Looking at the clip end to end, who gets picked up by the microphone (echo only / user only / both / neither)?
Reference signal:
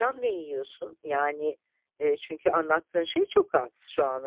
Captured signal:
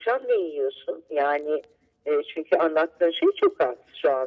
echo only